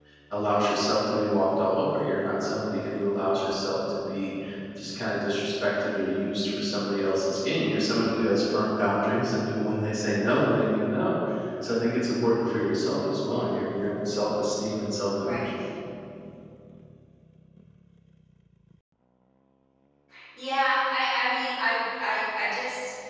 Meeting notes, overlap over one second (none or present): none